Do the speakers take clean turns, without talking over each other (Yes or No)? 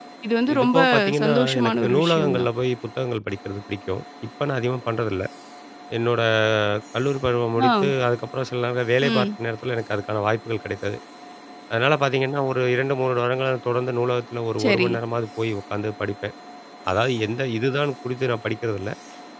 No